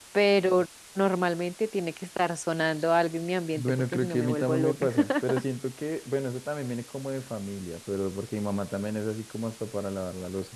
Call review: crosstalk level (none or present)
present